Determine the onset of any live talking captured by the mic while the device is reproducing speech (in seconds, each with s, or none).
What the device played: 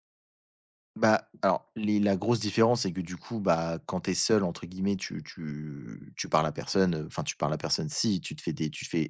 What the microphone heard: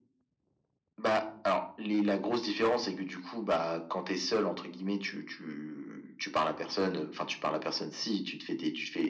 none